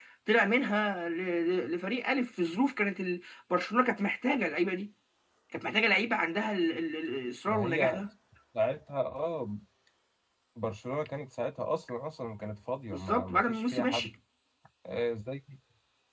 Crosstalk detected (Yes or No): Yes